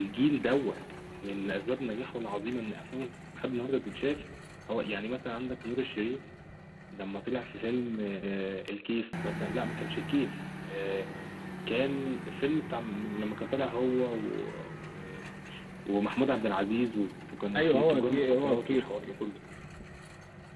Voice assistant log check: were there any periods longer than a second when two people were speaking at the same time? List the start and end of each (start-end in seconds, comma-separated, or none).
17.6-19.1